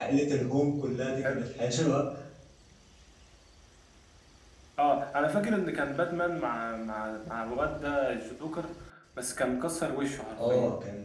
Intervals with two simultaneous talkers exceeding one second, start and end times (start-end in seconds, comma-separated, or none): none